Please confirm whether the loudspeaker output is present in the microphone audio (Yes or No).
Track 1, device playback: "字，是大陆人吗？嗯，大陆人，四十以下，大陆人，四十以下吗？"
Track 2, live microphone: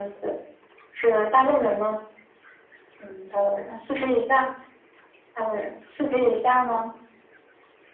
Yes